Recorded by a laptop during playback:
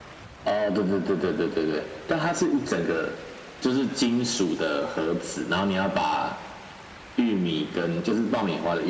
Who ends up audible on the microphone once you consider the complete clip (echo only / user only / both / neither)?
echo only